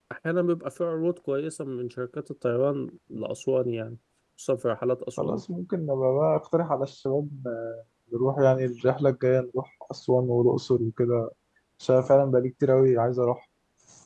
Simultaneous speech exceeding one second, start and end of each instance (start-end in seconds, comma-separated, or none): none